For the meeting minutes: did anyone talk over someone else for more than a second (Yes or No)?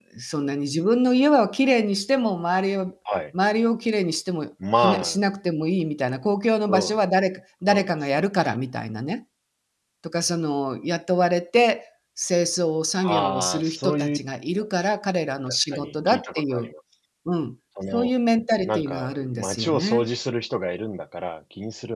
Yes